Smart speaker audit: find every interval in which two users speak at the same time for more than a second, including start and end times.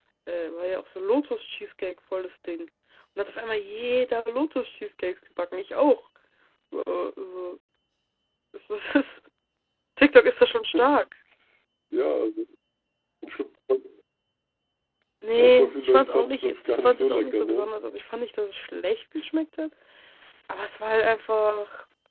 15.4-17.7

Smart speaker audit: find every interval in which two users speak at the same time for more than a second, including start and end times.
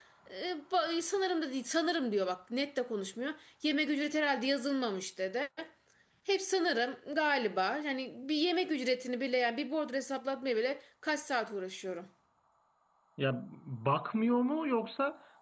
none

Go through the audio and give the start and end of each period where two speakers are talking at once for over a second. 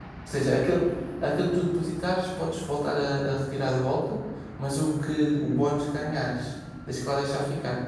none

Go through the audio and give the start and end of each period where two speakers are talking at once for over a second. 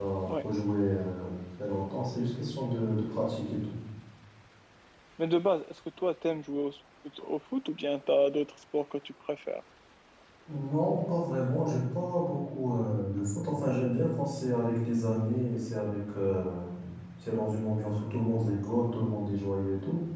none

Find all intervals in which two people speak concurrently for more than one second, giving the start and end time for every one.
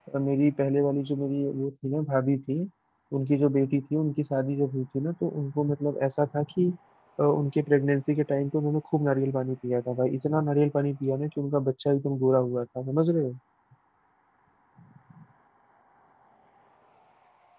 none

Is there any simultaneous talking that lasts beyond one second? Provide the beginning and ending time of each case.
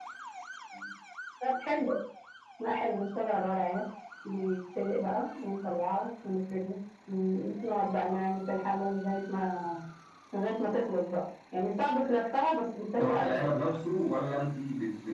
none

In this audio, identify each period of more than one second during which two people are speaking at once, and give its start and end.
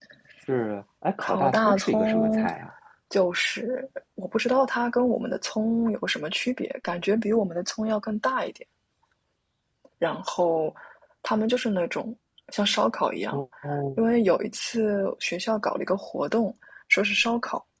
1.2-2.5

